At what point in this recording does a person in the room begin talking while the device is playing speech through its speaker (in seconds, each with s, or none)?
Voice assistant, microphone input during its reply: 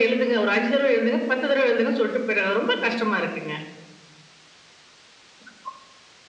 none